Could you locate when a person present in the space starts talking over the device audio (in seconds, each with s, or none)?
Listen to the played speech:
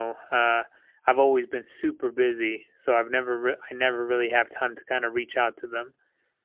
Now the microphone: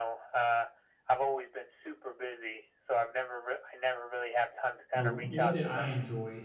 4.9 s